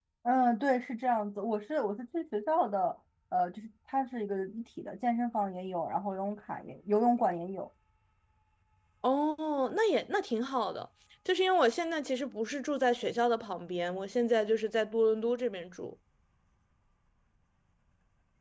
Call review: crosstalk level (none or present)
none